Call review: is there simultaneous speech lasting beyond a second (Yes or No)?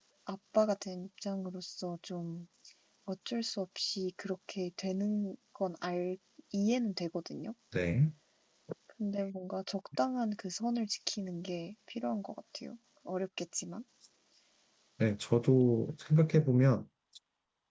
No